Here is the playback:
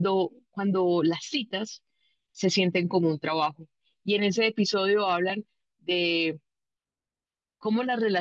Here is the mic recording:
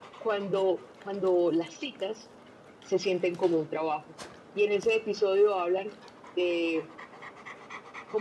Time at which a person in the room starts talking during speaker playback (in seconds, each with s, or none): none